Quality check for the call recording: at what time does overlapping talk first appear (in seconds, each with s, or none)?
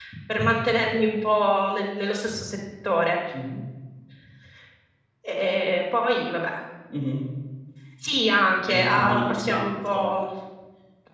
8.7 s